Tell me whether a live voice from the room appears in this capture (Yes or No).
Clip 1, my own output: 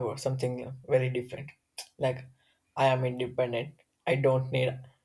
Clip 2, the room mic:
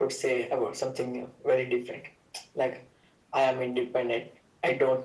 No